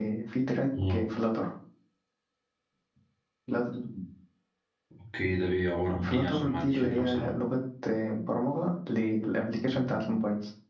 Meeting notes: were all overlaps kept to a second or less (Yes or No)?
No